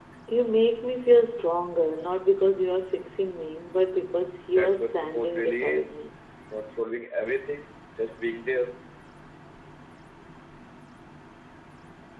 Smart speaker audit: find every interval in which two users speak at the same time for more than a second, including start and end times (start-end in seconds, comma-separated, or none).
4.5-5.9